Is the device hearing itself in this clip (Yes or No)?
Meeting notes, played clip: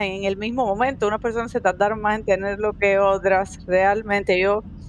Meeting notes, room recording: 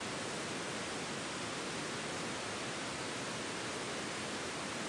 No